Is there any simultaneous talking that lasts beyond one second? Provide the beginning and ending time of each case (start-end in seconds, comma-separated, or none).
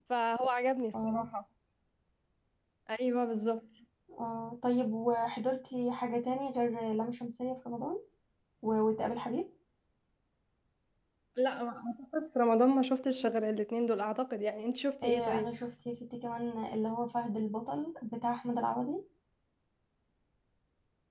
none